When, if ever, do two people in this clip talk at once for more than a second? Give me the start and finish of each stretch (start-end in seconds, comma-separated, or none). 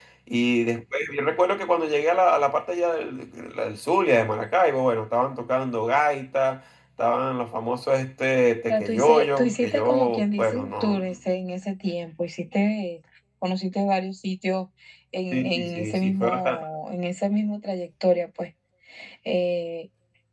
8.7-11.0, 15.3-16.6